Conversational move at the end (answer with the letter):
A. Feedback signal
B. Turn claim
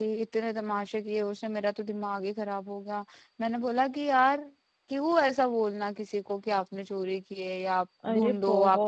B